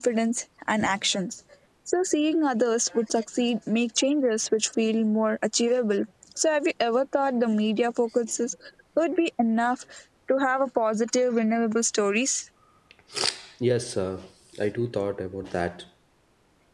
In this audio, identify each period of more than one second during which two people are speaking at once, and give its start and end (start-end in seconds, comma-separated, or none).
none